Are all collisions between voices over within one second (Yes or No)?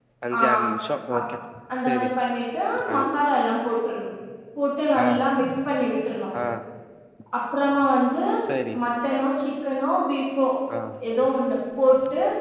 Yes